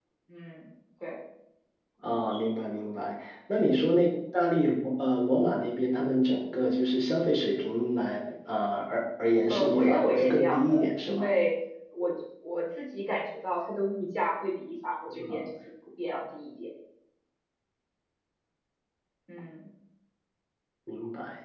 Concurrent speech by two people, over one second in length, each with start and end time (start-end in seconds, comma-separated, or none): 9.5-11.3